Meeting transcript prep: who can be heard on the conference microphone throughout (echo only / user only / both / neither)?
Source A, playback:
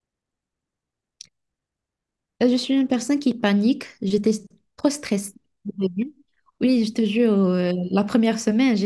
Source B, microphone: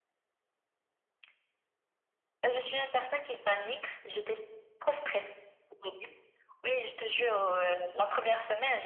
echo only